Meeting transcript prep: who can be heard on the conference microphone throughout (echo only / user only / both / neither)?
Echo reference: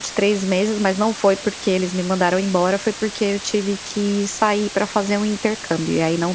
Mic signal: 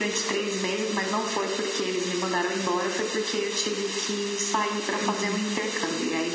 both